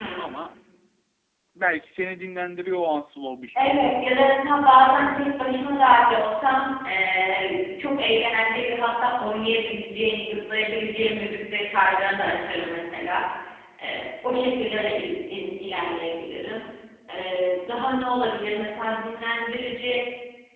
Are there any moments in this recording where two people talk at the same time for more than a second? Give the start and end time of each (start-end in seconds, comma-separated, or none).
none